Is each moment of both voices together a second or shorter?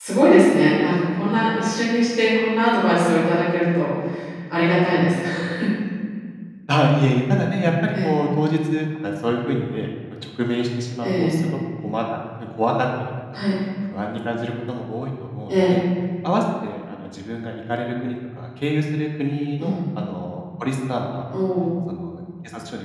Yes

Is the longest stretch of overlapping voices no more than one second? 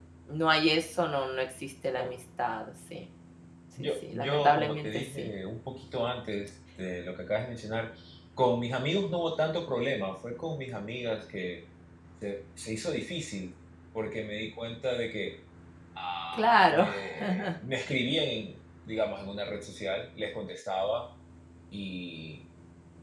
No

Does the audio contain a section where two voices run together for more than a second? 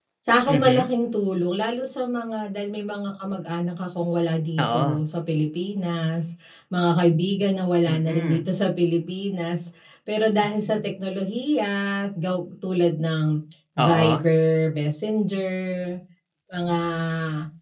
No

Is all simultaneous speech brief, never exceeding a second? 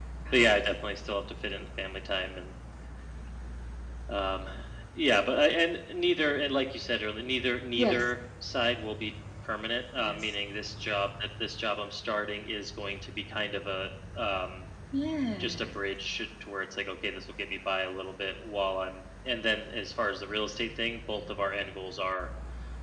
Yes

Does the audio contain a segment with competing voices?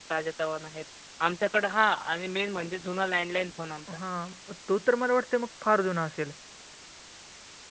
No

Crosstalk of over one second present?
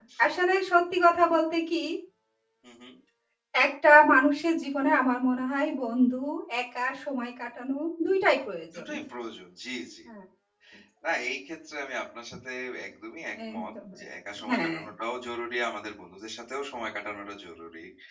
No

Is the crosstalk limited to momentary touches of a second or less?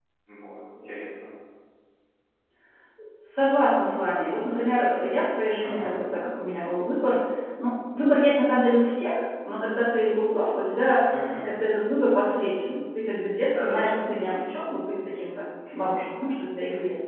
Yes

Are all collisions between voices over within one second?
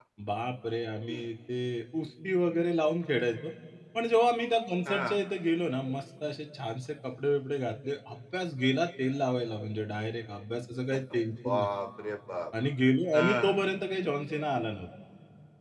Yes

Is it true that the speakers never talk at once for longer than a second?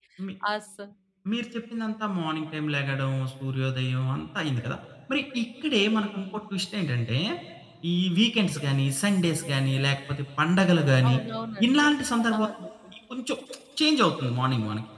Yes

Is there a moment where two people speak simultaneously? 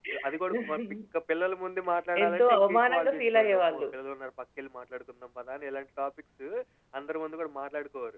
Yes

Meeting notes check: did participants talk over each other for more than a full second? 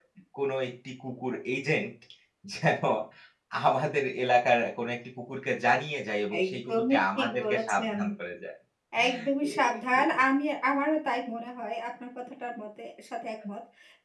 Yes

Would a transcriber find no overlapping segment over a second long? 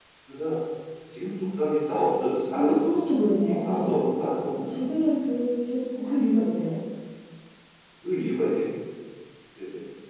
No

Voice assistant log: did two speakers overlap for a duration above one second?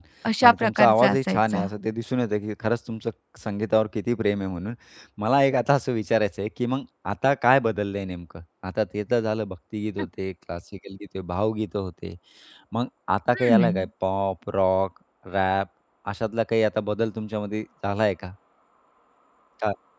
Yes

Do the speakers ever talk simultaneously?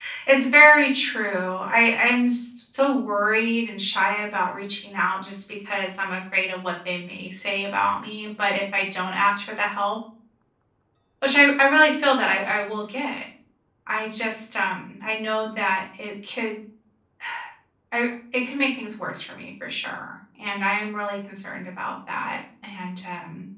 No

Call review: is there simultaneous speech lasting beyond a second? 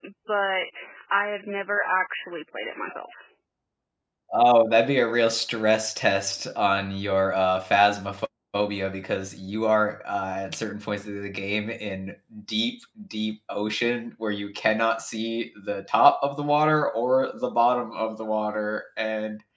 No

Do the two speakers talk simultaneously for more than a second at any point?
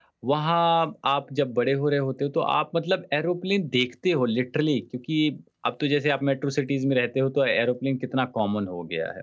No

